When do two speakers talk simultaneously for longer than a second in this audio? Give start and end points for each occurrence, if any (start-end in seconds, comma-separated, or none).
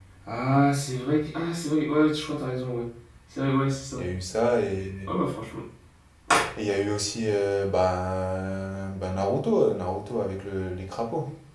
none